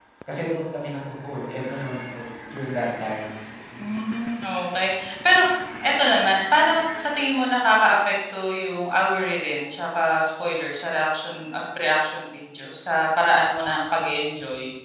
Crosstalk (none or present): none